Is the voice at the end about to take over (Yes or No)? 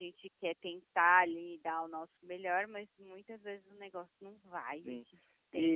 Yes